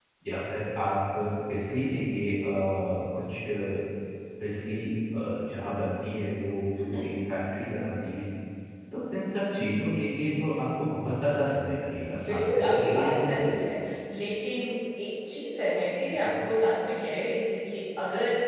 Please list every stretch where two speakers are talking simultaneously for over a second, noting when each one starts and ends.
12.1-13.6

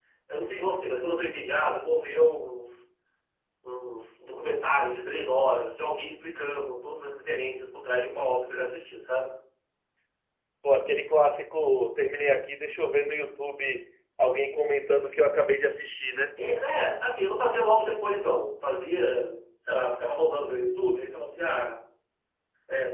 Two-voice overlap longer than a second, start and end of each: none

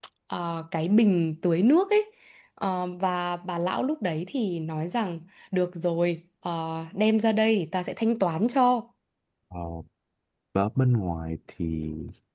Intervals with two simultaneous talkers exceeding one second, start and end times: none

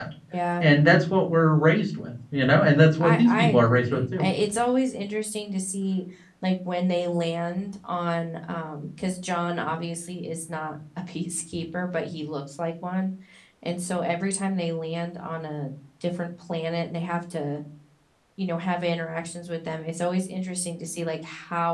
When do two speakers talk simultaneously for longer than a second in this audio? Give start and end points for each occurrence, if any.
3.0-4.2

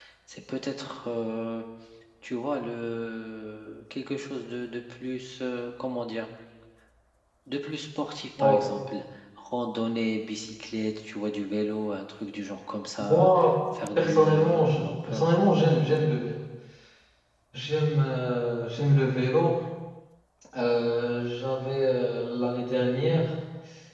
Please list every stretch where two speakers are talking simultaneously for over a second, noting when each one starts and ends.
13.9-15.3

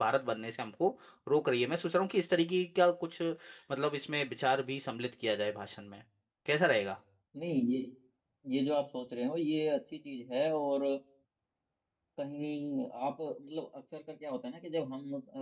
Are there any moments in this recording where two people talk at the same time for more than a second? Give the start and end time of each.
none

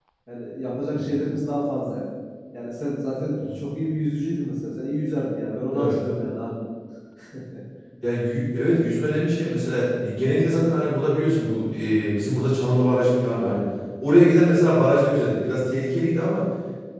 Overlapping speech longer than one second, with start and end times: none

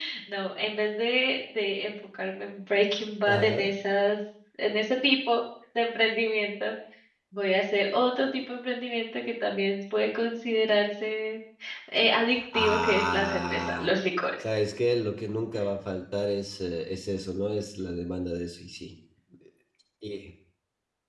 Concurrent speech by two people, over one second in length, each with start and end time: 12.5-13.9

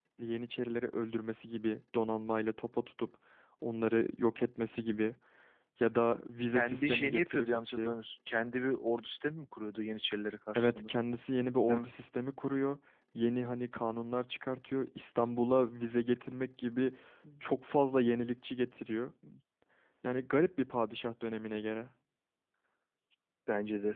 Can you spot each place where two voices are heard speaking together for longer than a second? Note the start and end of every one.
6.5-8.0

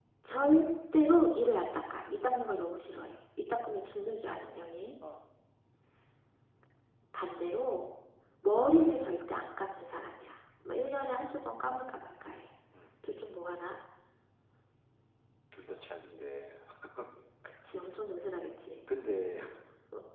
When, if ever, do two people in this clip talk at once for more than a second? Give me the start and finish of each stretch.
none

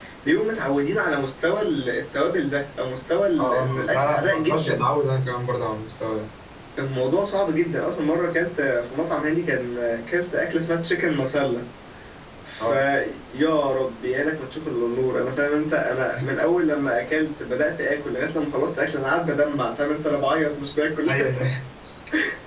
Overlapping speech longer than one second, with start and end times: 3.4-4.8

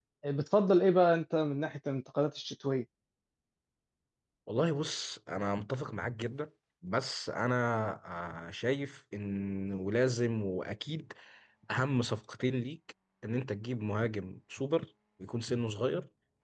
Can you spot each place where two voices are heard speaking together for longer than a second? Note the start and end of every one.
none

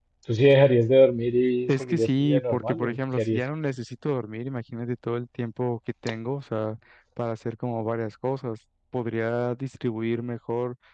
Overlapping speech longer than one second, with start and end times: 1.7-3.4

